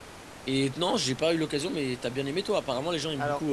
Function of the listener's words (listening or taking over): taking over